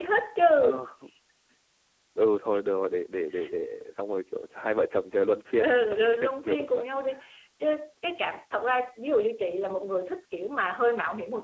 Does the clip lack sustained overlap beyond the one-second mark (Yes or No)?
No